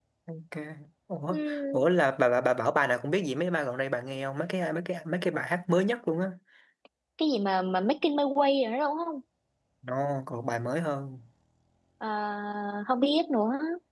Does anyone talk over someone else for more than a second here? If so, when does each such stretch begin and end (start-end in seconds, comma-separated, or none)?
none